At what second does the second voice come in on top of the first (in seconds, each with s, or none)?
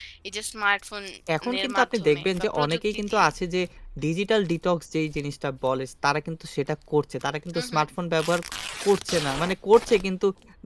1.6 s